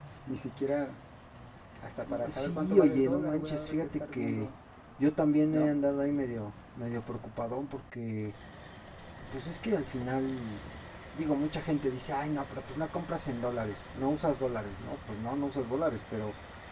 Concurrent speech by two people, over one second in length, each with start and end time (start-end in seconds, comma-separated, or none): 2.3-4.5